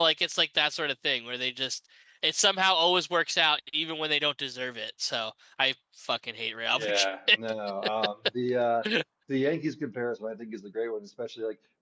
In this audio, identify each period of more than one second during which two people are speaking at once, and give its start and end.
none

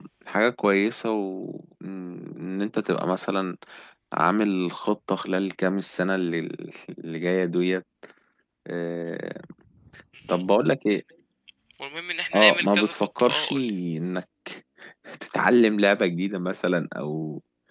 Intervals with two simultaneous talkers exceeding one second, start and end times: 12.3-13.7

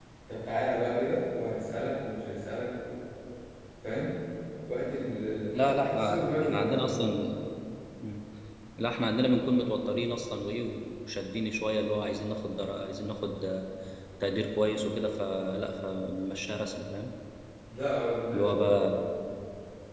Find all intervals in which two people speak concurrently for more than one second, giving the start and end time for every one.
5.5-7.1

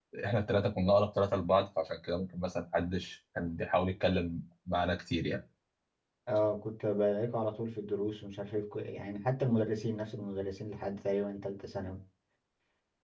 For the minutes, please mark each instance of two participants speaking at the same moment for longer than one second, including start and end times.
none

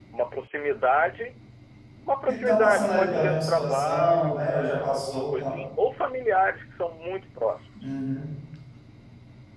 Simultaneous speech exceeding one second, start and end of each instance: 2.3-5.6

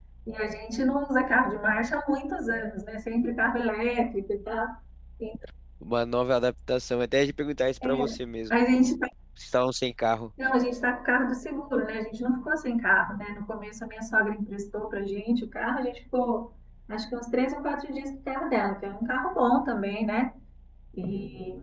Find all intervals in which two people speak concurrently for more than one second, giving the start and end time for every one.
none

